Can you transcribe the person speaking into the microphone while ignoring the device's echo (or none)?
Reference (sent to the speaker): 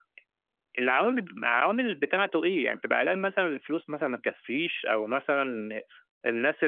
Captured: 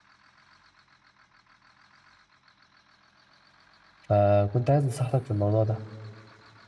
فكنت عايز نصيحتك في الموضوع ده؟